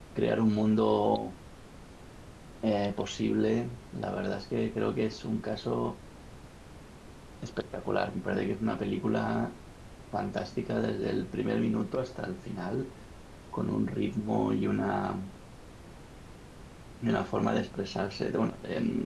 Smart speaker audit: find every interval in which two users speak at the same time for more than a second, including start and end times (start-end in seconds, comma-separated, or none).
none